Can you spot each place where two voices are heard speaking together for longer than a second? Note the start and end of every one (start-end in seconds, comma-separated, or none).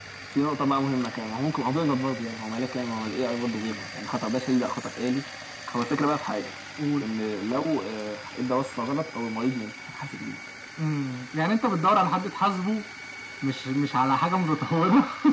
none